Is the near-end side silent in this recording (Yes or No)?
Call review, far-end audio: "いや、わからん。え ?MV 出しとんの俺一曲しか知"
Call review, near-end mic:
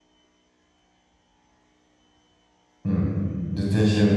No